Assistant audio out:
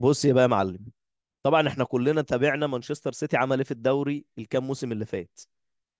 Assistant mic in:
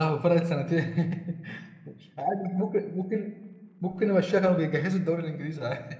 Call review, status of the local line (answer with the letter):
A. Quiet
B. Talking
B